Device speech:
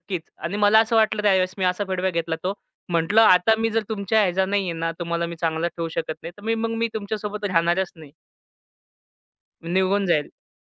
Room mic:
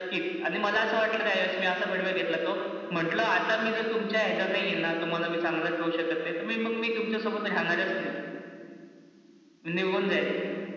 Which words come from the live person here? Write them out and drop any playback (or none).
none